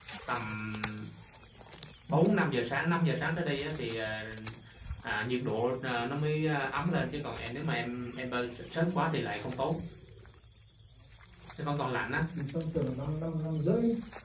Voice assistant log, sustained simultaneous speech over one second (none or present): none